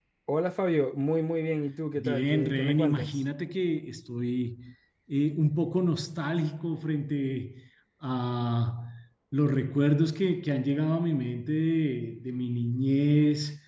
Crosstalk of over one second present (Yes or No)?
Yes